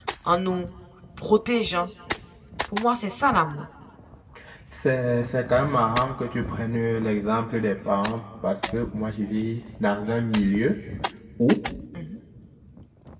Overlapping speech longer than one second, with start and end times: none

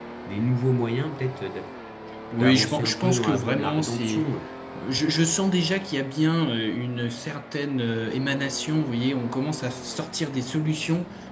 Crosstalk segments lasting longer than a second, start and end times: 2.4-4.3

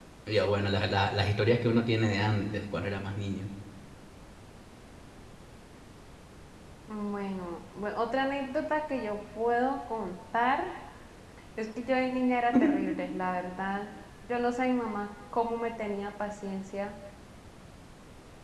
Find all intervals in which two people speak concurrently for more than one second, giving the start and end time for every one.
none

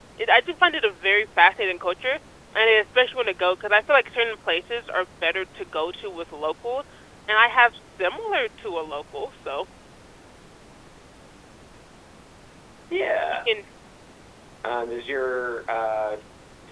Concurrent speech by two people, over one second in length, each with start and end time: none

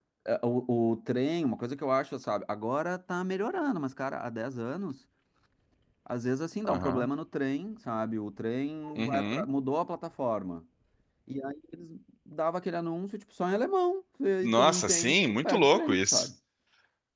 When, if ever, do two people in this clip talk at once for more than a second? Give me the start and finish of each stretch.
14.4-16.3

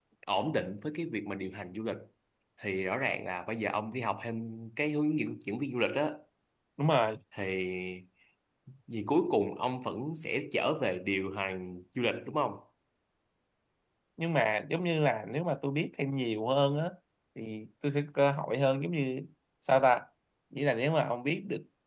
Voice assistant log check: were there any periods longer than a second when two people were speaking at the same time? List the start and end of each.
none

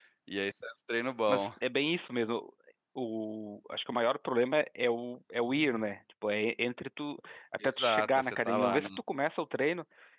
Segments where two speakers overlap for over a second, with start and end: 7.6-8.9

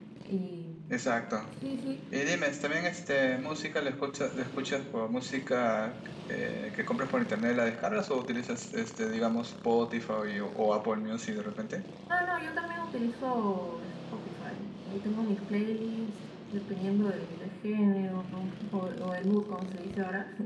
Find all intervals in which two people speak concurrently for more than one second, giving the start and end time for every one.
none

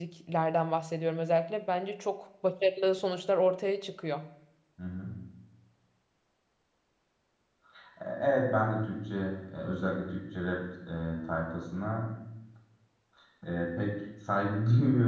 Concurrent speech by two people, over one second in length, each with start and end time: none

